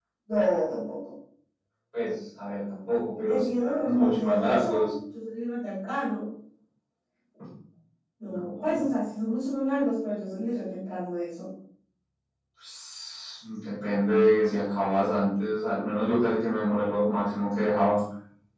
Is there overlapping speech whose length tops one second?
Yes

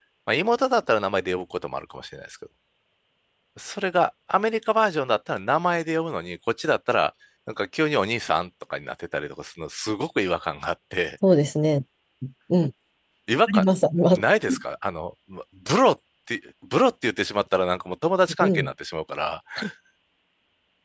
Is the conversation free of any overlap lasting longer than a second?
Yes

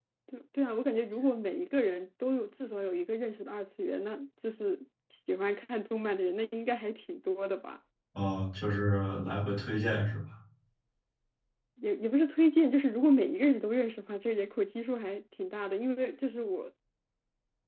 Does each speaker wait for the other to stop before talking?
Yes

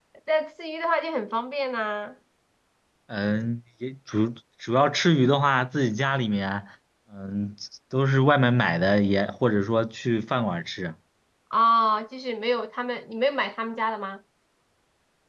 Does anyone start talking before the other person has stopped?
No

